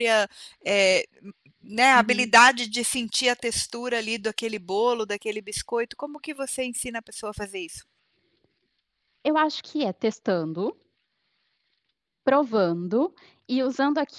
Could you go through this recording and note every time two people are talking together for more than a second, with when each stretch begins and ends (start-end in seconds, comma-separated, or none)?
none